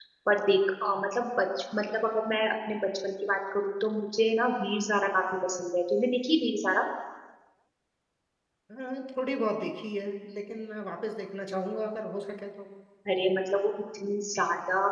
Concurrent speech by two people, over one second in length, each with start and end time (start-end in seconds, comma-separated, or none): none